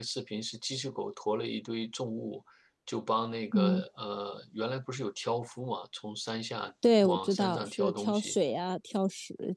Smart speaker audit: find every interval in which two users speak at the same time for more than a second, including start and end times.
7.0-8.4

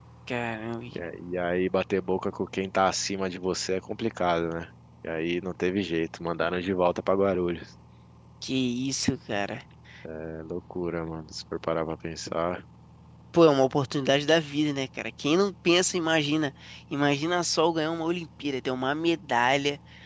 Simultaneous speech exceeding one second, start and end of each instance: none

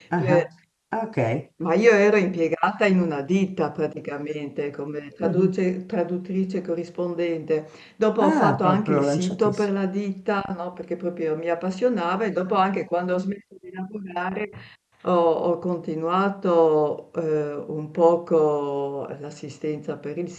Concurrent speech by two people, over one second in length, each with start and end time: 8.2-9.6

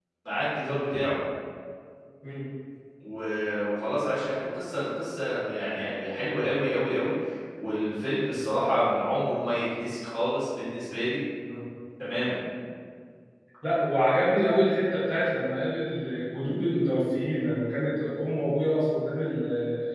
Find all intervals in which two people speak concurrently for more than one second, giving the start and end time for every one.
none

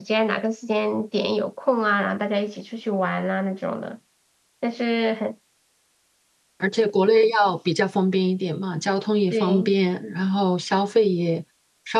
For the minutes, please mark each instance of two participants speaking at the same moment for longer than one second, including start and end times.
none

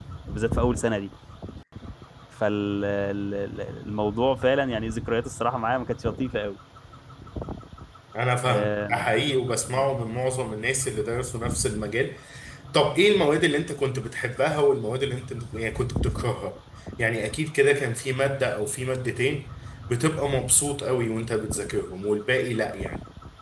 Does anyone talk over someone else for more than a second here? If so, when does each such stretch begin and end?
none

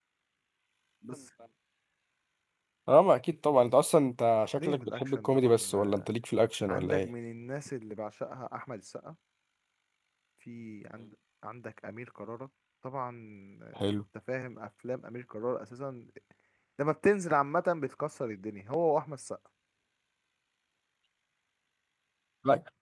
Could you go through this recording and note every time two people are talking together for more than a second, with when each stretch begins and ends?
4.6-6.0

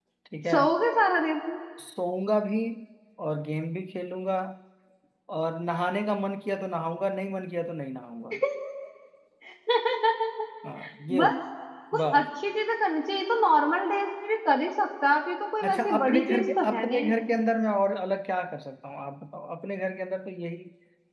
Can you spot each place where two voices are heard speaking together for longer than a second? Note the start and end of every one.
15.6-17.1

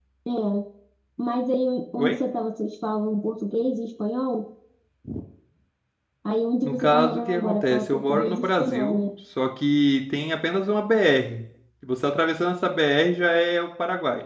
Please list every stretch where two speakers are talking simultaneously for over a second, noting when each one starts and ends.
6.6-9.1

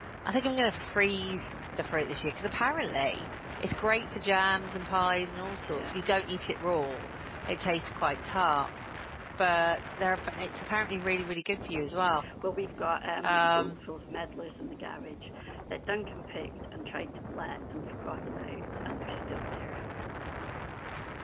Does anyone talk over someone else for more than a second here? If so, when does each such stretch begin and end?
none

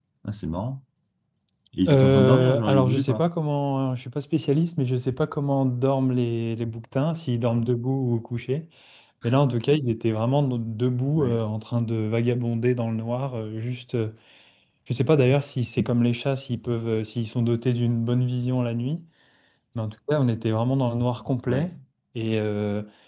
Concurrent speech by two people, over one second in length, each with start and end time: 1.9-3.2

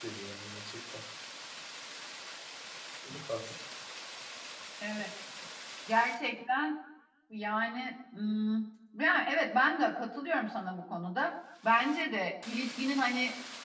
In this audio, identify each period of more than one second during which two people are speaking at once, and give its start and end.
none

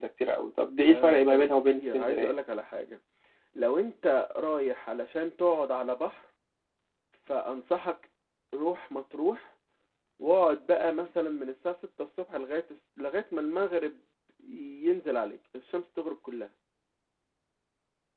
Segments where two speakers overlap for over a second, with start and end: 0.8-2.3

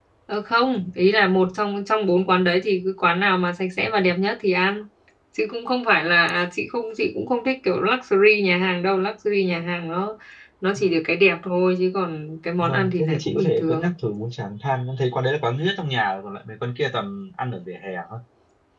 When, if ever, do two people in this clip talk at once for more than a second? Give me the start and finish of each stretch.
12.6-13.9

